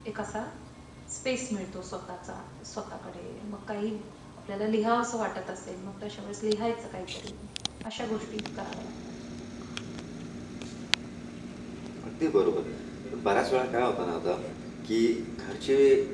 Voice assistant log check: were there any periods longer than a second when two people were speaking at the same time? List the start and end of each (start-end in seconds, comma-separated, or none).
none